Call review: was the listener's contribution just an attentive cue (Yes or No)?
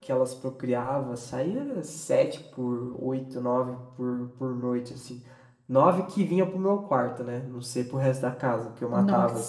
Yes